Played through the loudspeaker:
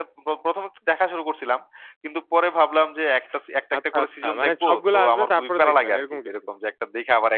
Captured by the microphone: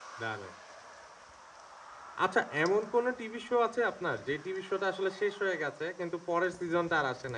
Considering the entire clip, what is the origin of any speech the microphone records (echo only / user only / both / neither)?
user only